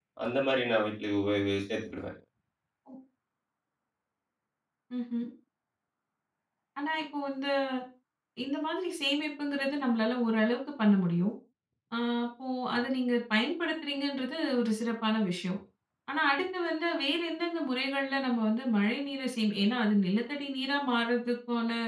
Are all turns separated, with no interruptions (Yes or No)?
Yes